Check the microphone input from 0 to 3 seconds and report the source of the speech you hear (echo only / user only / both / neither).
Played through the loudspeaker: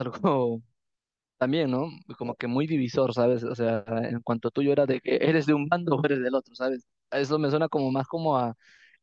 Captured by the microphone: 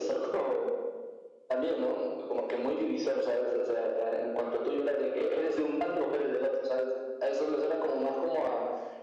echo only